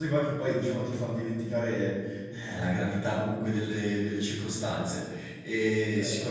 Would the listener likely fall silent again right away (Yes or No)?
Yes